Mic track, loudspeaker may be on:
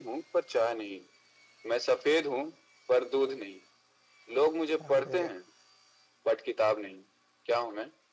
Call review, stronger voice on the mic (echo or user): echo